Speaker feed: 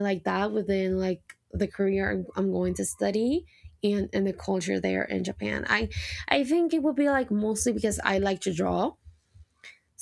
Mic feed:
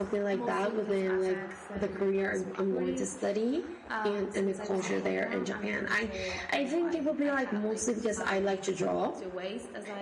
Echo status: present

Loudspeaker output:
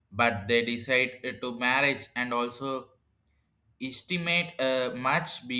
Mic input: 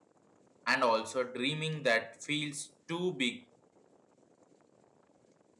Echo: none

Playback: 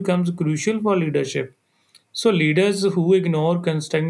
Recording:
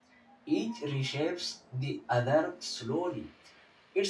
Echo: none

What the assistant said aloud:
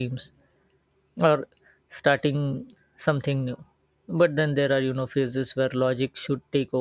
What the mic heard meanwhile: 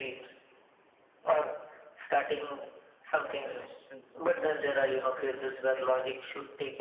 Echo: present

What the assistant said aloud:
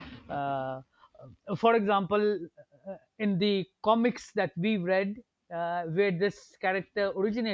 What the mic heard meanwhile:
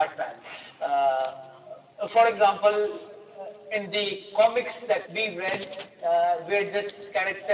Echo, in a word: present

